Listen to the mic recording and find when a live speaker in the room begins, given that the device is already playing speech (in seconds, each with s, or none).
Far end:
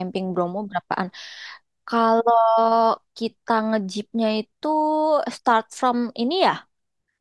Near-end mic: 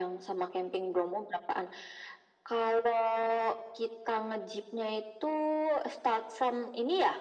none